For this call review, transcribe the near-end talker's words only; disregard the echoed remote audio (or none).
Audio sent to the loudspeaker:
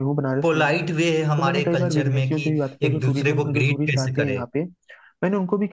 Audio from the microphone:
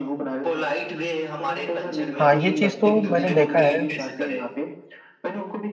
हाँ ये चीज तो मैंने देखा है